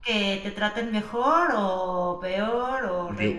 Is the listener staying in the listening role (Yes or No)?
No